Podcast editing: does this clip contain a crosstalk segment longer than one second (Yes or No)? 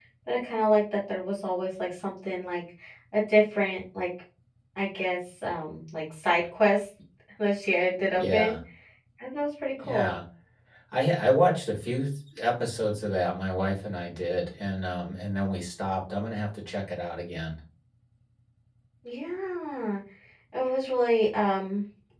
No